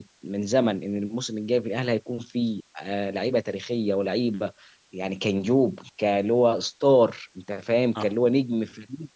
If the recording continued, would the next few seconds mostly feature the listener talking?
No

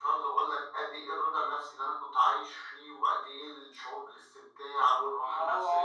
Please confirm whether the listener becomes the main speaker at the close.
Yes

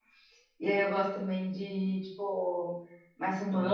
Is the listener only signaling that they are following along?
Yes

